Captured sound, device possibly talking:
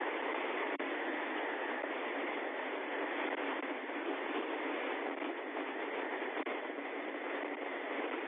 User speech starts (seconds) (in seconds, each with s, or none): none